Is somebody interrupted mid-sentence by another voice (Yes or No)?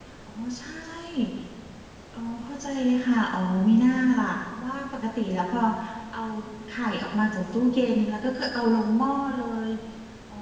No